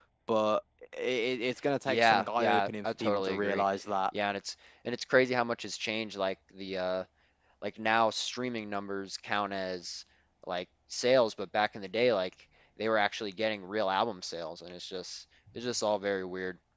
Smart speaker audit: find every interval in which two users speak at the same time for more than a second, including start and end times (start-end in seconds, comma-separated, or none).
1.9-3.6